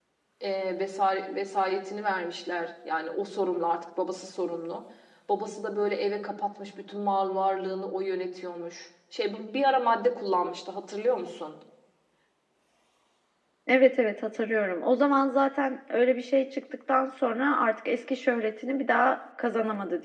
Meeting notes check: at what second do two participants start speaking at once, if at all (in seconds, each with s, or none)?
none